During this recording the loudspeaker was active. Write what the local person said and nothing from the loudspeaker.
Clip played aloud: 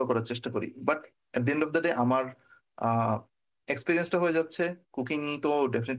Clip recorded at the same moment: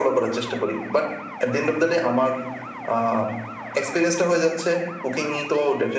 none

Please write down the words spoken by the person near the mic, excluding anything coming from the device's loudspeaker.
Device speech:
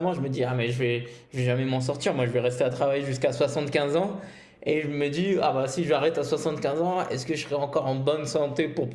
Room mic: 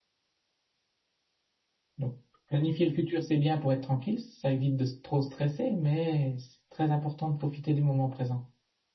Donc, planifier le futur, c'est bien pour être tranquille, ça évite de s- trop stresser, mais c'est très important de profiter du moment présent.

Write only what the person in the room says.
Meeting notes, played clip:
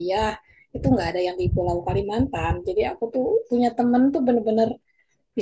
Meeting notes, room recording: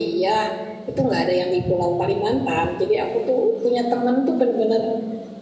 none

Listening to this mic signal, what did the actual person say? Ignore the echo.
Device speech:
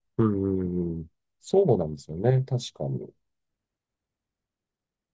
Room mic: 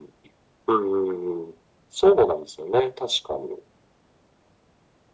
none

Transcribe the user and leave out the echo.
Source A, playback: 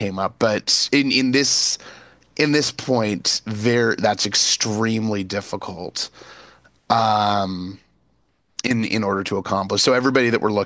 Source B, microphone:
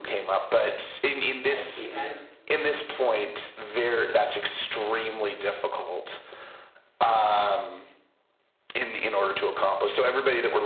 I see. And

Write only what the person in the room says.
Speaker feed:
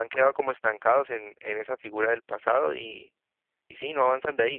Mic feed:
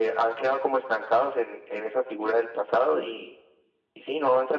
none

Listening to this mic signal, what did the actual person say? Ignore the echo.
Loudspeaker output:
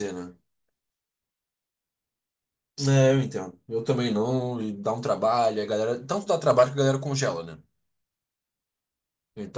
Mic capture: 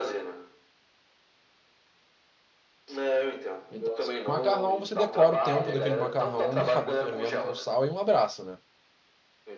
Então, assim, o macarrão, você decora o tempo daquele macarrão na água fervendo com sal e um abraço, né?

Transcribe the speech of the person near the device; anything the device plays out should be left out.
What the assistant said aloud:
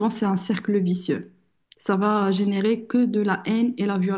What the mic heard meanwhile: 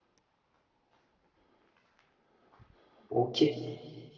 Ok,

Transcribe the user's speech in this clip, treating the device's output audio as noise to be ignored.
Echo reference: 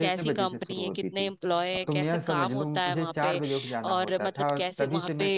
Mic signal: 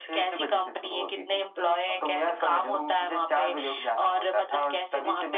none

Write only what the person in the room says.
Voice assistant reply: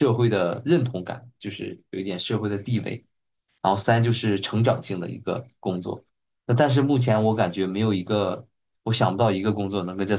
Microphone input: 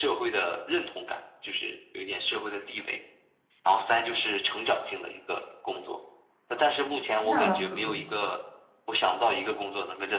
你想当什么呢？

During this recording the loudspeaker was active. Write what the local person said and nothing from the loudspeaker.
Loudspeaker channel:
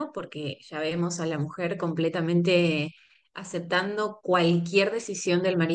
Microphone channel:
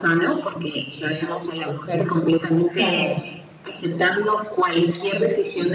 Claro,

